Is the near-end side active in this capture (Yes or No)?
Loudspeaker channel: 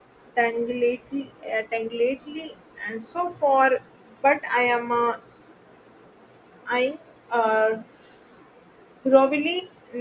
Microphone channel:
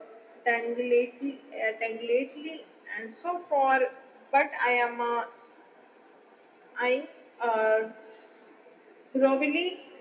No